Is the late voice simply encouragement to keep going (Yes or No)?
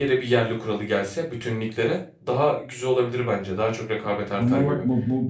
No